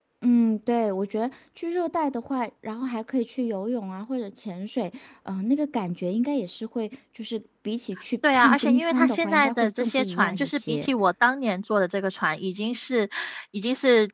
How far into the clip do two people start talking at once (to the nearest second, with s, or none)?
8 s